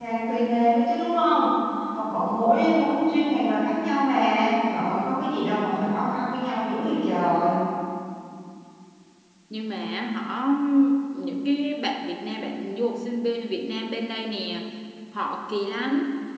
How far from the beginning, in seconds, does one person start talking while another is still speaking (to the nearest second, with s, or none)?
none